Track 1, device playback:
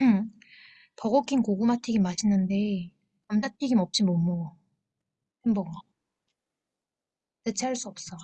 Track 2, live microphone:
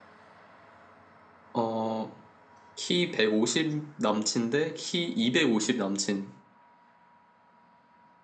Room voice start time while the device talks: 1.5 s

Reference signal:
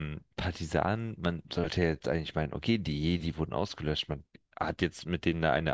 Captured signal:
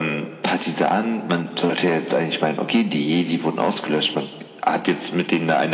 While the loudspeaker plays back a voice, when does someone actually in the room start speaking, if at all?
none

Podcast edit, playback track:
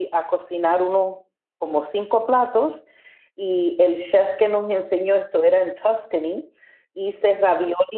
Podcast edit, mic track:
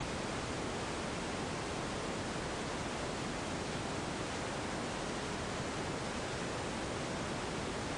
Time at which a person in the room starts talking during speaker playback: none

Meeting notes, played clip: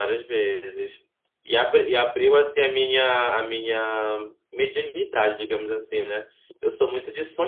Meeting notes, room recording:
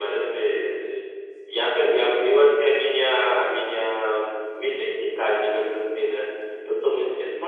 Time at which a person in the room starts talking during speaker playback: none

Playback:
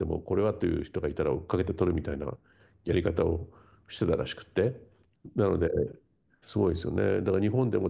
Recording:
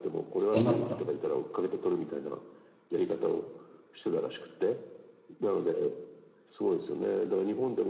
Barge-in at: 0.5 s

